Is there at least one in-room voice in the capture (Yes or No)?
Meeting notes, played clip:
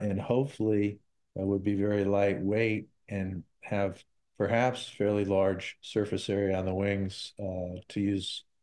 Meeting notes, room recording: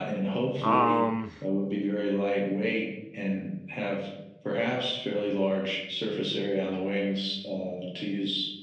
Yes